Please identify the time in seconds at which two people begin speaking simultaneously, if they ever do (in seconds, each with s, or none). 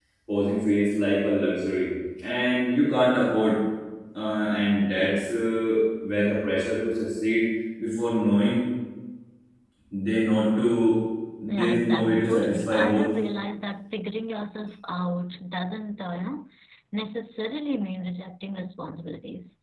11.5 s